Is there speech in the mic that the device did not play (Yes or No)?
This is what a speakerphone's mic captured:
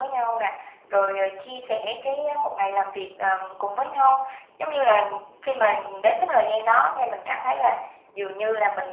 No